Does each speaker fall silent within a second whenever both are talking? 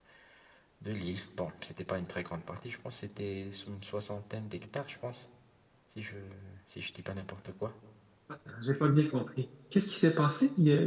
Yes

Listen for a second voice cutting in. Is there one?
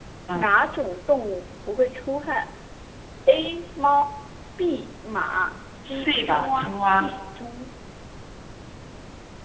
Yes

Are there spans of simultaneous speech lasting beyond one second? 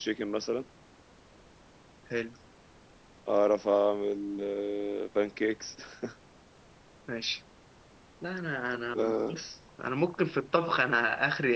No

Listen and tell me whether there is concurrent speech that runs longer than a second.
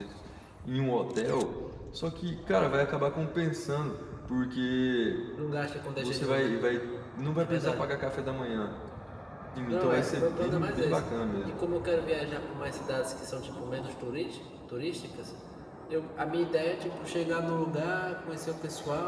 Yes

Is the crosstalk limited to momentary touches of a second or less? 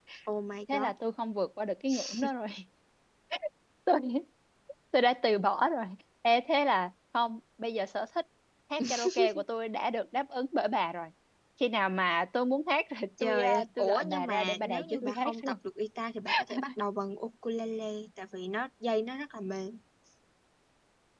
No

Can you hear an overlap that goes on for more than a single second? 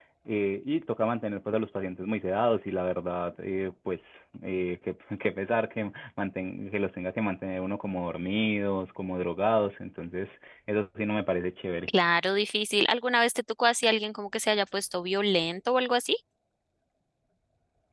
No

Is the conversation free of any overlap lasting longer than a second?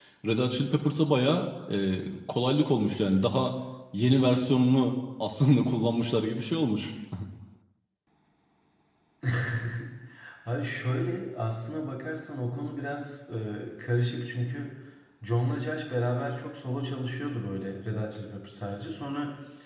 Yes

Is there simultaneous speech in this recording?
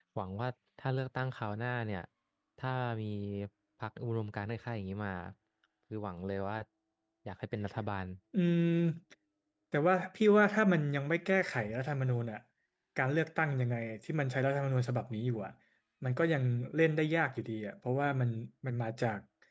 No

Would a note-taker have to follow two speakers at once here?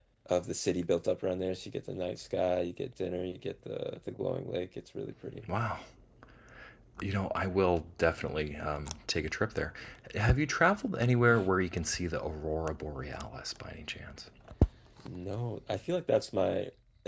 No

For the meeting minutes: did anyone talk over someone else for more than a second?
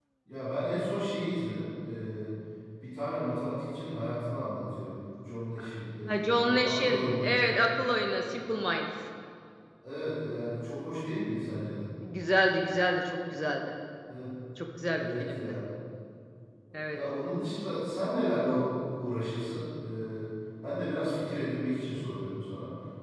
Yes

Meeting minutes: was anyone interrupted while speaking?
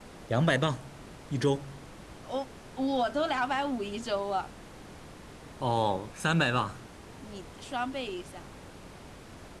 No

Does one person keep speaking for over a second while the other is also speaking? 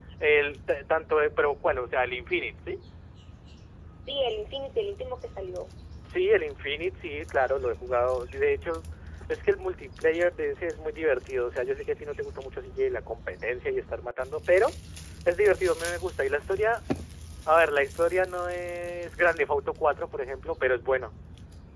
No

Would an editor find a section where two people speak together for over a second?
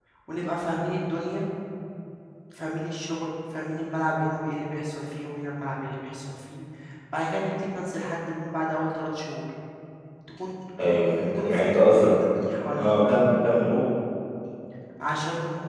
Yes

